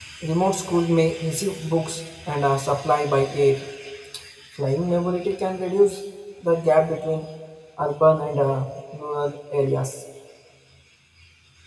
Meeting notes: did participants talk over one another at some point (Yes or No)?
No